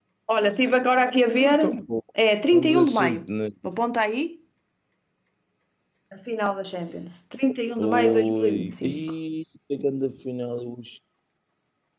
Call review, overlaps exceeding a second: present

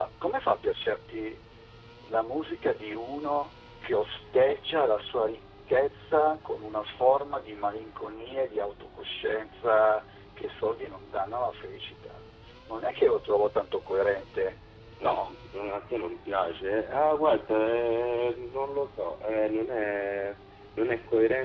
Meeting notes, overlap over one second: none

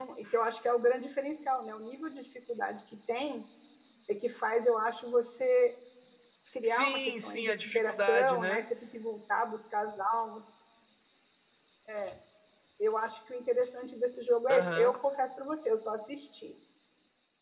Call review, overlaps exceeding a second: present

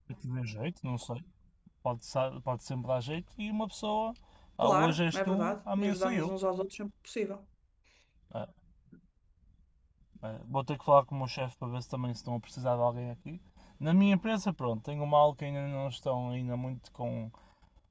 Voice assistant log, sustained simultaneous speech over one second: present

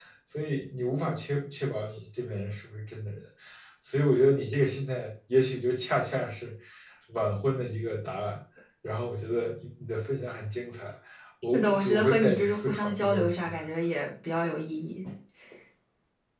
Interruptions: present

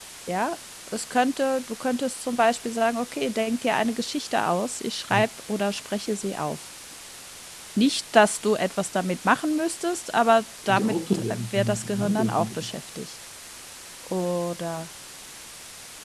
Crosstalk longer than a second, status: present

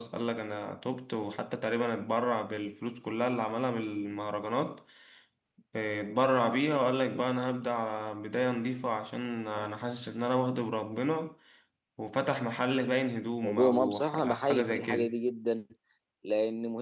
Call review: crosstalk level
present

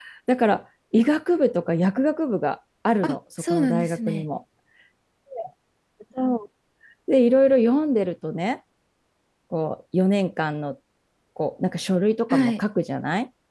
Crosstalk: present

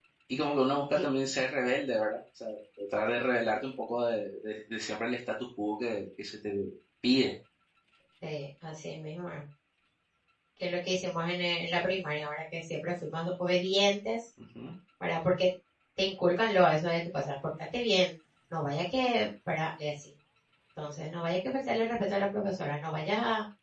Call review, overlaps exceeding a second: none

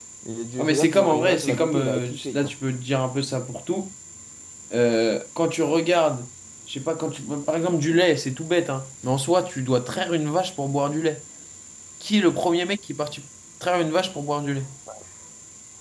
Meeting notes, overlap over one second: present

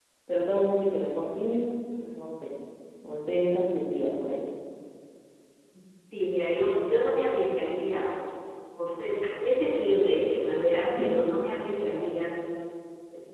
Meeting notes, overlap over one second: none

